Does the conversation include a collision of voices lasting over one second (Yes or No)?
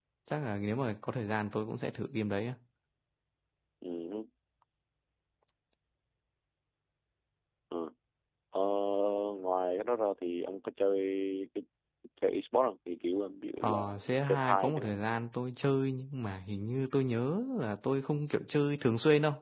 Yes